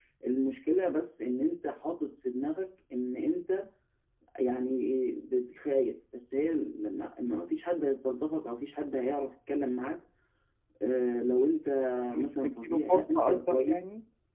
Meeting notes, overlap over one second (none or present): present